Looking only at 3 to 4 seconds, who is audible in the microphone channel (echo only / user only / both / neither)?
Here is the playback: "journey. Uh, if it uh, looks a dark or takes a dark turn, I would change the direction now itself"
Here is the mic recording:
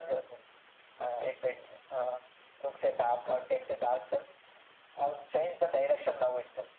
echo only